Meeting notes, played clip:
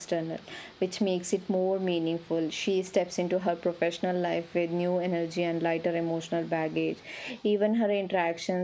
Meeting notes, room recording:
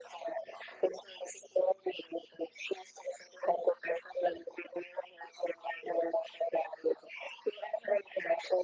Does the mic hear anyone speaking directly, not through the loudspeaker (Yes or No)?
No